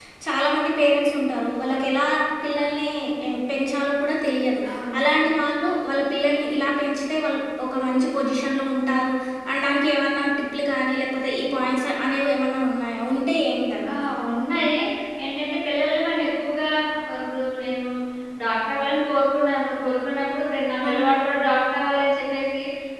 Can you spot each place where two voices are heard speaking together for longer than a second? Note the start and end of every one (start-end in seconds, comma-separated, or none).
none